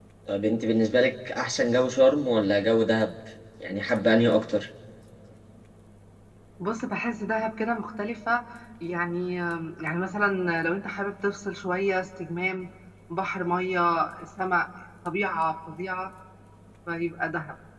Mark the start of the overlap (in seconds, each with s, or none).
none